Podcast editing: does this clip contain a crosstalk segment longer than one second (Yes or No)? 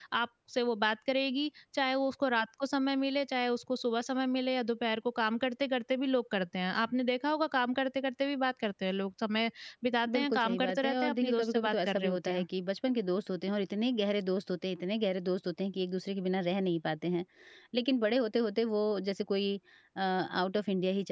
Yes